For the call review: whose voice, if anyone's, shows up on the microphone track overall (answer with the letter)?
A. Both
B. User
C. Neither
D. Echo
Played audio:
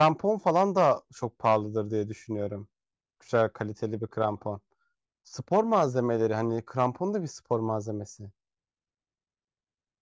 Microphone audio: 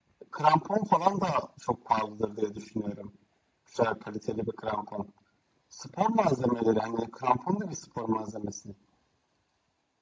D